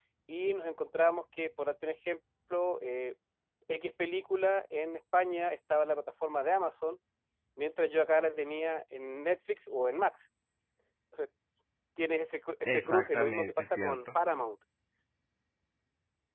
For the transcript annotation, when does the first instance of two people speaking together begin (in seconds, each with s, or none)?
12.7 s